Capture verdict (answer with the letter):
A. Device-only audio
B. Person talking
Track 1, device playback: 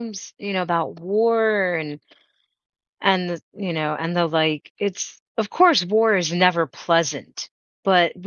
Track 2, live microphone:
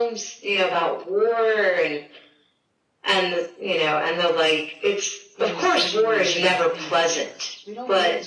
B